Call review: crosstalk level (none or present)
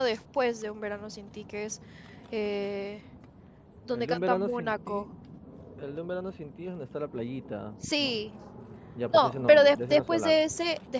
present